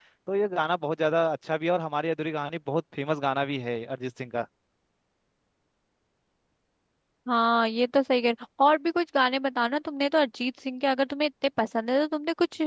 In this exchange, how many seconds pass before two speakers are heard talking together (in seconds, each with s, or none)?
none